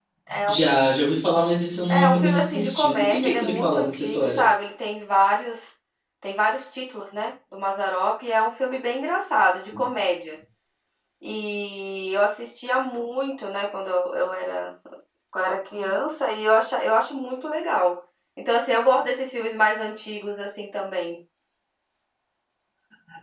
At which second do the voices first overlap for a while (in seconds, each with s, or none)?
1.9 s